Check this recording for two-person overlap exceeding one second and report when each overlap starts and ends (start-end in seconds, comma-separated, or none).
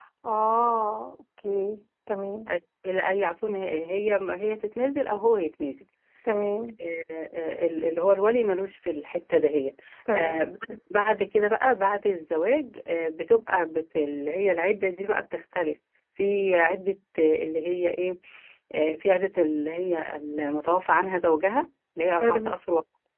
none